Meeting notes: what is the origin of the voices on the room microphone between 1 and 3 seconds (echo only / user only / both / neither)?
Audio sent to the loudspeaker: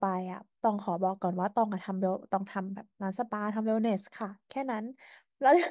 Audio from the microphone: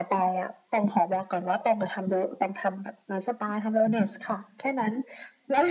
echo only